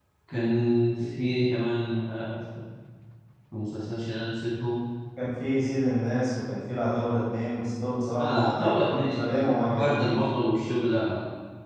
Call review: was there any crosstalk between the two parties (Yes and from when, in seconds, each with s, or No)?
Yes, from 8.2 s